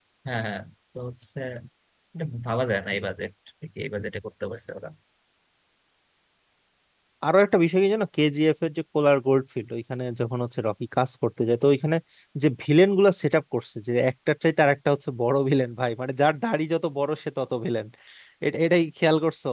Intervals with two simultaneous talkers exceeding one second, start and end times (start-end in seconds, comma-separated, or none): none